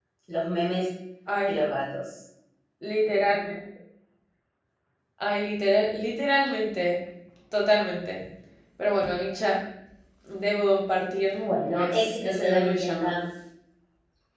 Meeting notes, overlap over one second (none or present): present